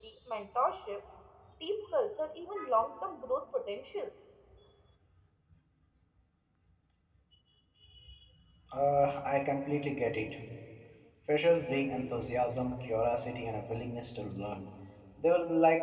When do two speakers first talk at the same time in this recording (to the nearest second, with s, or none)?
none